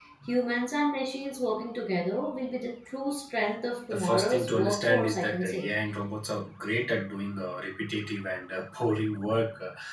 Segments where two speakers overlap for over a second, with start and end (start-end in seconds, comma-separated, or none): 3.9-5.7